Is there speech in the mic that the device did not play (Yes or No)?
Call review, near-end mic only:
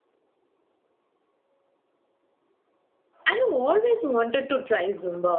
Yes